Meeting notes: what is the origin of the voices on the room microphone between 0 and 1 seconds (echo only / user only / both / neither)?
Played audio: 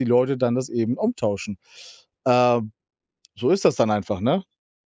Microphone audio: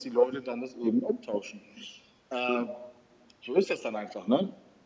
echo only